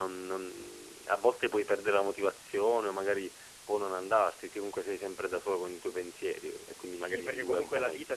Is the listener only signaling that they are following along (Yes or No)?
No